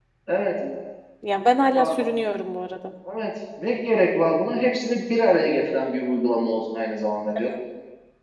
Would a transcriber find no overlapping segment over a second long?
Yes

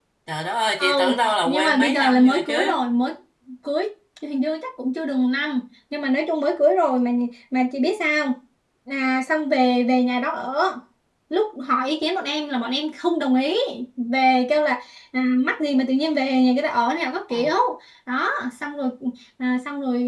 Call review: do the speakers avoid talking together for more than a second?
No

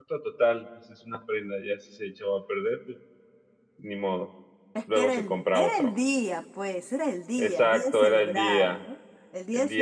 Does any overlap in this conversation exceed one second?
Yes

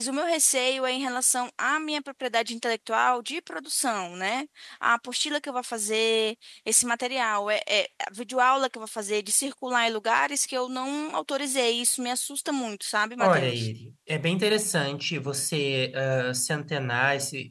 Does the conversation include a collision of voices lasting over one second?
No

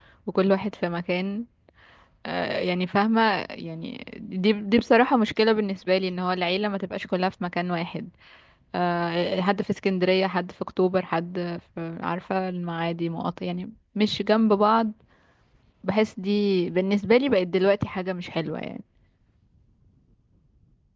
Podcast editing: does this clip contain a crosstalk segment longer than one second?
No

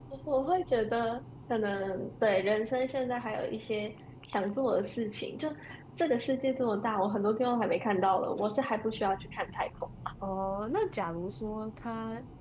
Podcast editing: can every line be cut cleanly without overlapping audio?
Yes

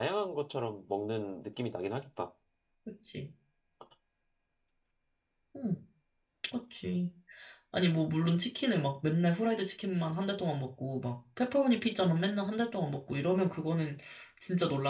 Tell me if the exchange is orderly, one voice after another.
Yes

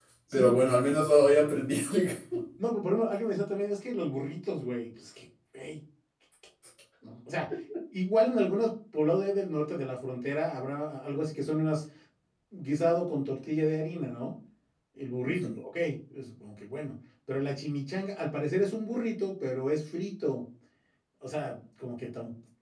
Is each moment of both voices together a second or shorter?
Yes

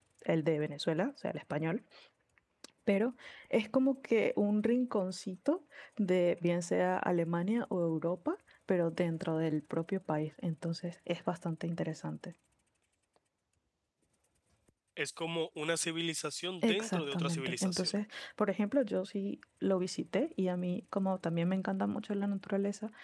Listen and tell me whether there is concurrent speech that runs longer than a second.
Yes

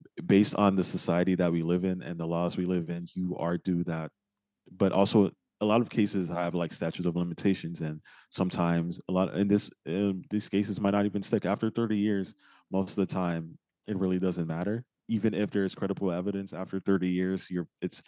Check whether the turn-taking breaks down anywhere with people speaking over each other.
No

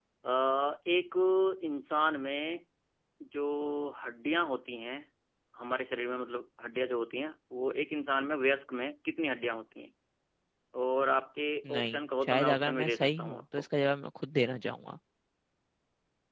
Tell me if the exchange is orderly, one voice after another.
No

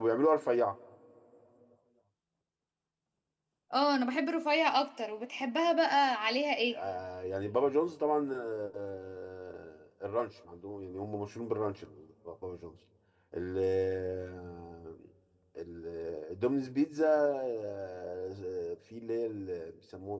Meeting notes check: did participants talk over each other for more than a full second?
No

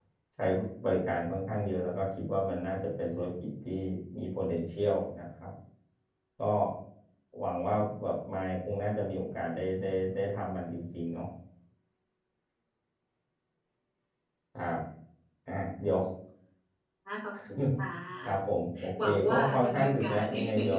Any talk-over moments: Yes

